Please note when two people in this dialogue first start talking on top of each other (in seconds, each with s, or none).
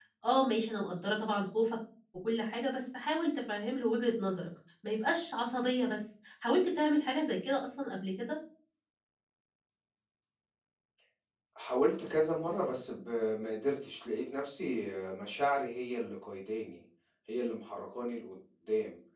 none